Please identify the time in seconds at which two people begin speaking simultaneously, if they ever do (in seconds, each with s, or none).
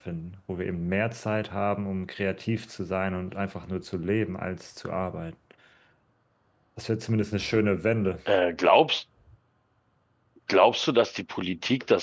none